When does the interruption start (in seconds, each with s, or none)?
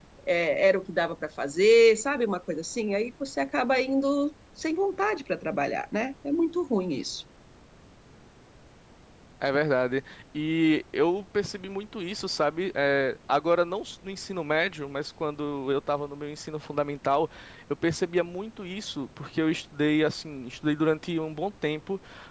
none